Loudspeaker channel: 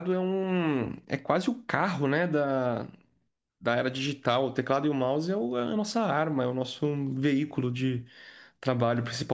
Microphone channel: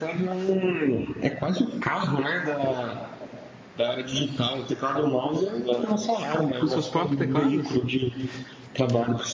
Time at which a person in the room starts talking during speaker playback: 6.6 s

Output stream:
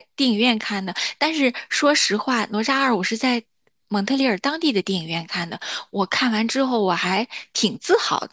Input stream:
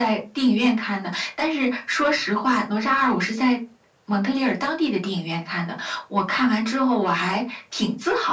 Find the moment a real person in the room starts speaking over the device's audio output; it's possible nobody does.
none

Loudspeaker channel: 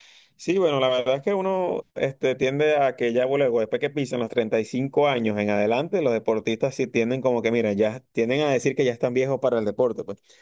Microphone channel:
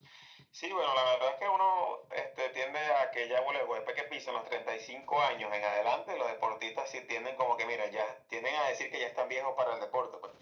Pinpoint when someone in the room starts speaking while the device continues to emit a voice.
none

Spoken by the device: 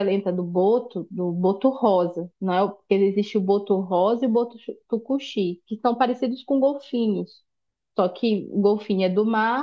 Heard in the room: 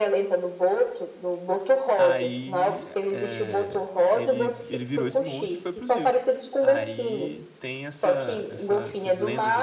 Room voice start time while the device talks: 2.0 s

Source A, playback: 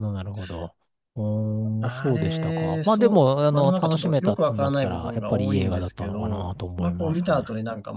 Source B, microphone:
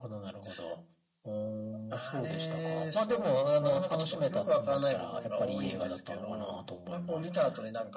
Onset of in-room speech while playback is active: none

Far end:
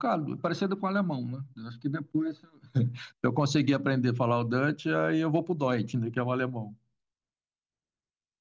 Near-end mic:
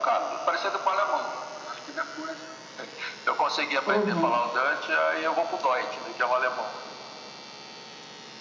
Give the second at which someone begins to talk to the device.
3.9 s

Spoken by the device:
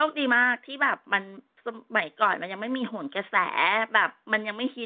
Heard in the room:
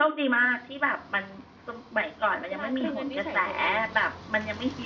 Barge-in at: 2.5 s

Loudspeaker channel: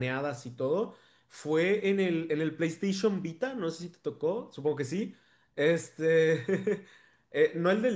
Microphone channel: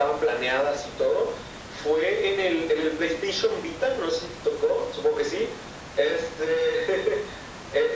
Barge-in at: none

